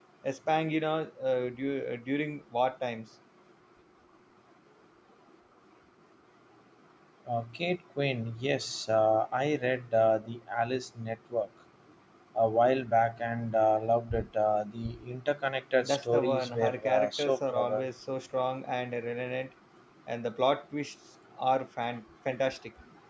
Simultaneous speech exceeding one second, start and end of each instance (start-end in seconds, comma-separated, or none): 15.8-17.8